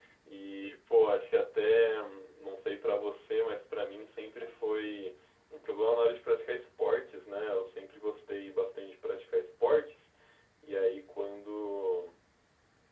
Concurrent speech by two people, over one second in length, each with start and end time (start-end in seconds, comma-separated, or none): none